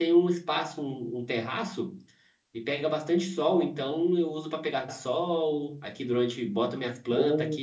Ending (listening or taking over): listening